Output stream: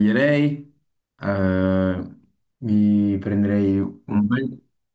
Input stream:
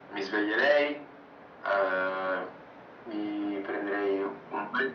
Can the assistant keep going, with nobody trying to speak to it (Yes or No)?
Yes